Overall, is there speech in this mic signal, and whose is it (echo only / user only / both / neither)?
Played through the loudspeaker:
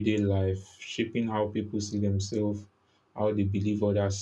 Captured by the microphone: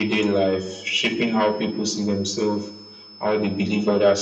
echo only